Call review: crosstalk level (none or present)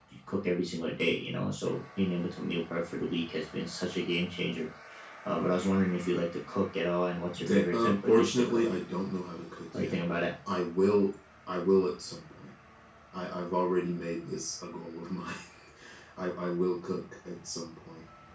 present